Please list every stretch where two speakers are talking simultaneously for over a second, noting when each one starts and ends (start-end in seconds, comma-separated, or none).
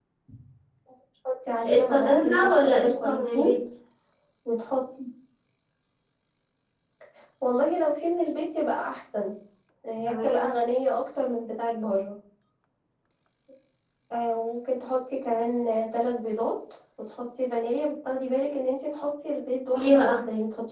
1.6-3.5